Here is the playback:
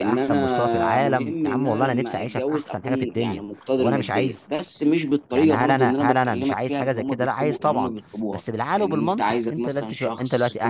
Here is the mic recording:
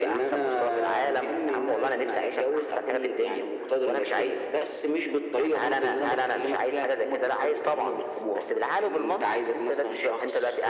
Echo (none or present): present